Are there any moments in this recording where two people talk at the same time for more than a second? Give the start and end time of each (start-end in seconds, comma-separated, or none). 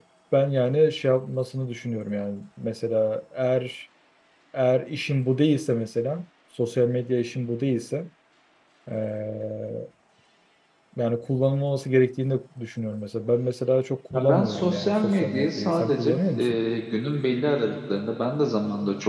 14.1-16.6